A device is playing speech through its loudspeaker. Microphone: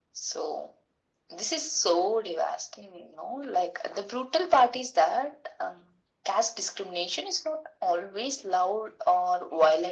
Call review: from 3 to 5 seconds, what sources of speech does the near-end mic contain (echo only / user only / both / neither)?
echo only